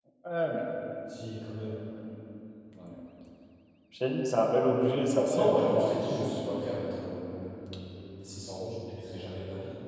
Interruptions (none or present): present